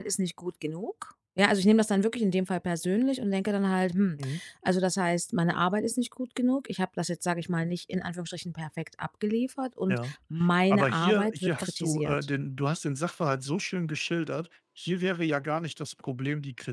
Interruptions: present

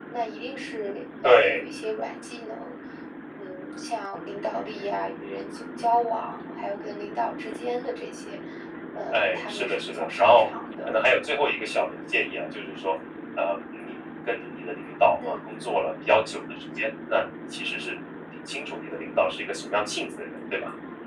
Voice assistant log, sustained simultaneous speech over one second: present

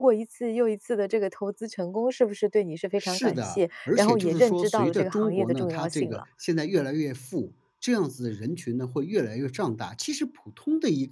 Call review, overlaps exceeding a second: present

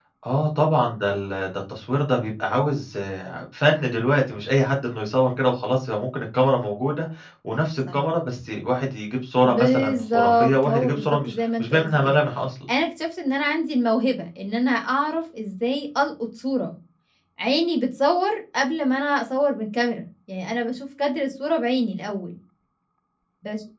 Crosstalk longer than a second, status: present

